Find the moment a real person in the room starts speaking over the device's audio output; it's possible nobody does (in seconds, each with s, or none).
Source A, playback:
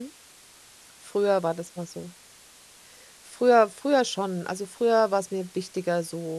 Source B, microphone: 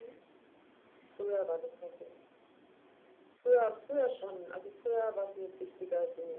none